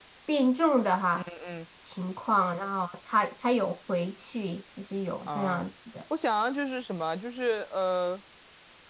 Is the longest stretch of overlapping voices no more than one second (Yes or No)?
Yes